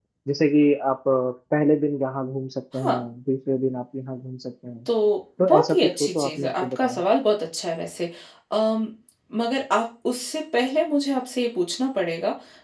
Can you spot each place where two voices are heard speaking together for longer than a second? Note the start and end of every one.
5.4-7.0

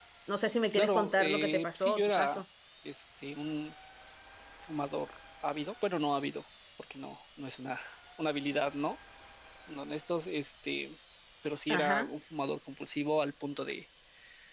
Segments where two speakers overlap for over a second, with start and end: 0.7-2.4

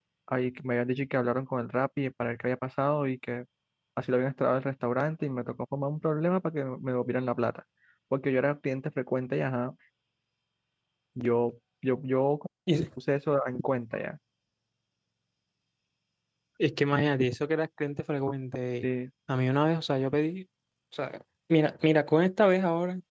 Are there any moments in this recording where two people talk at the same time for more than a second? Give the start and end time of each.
none

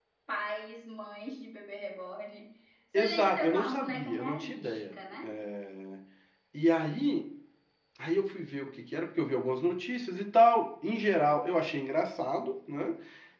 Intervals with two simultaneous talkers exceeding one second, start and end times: 2.9-5.0

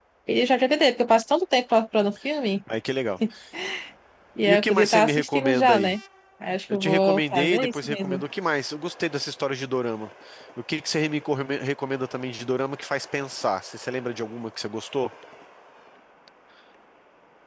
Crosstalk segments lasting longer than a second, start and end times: 4.5-5.9, 6.7-8.2

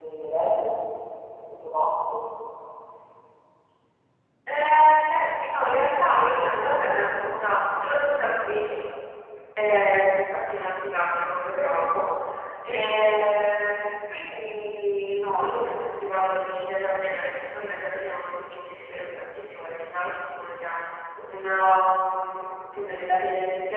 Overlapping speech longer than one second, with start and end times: none

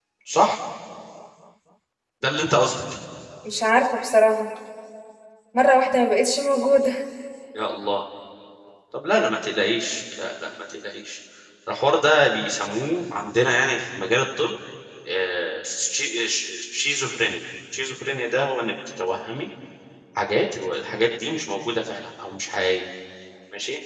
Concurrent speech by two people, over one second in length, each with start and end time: none

